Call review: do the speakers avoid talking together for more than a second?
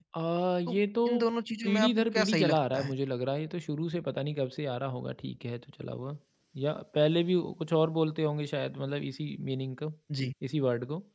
No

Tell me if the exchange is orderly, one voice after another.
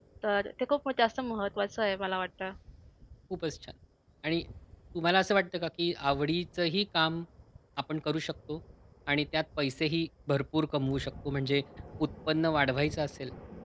Yes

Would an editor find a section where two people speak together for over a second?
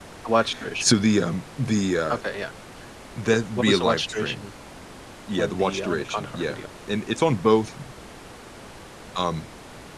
Yes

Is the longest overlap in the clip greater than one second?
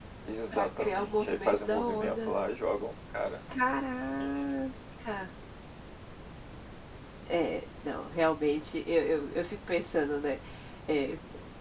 Yes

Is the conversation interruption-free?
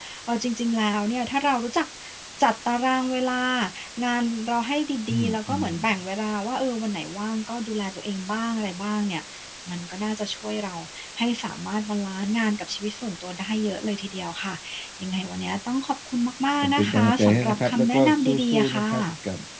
No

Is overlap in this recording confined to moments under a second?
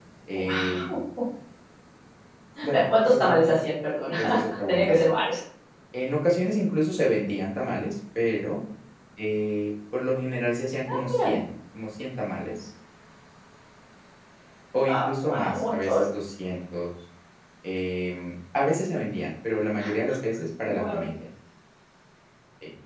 No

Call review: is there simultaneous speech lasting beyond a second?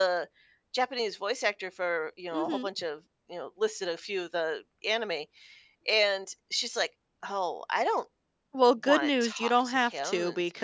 Yes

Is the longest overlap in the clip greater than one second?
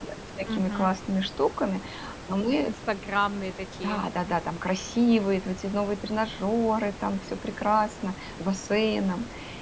No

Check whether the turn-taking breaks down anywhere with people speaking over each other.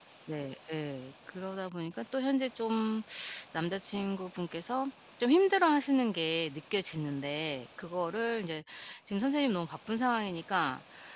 No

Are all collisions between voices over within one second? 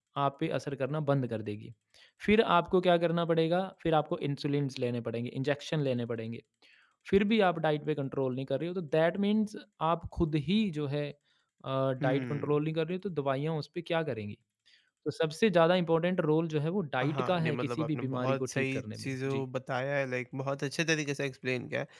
No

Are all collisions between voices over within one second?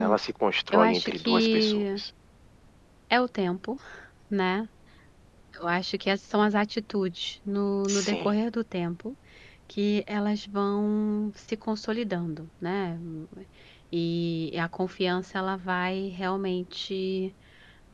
No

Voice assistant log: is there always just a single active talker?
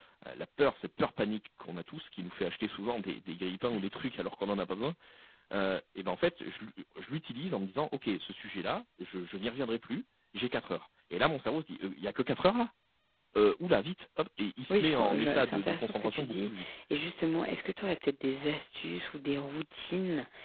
No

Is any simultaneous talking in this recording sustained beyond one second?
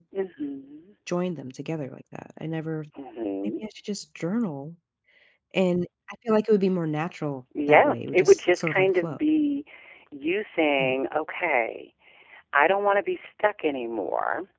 Yes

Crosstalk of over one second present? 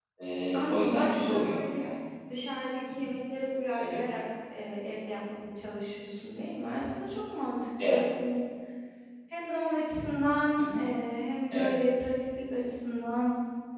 Yes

